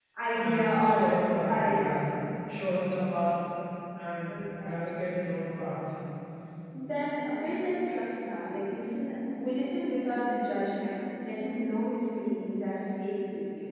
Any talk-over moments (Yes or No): Yes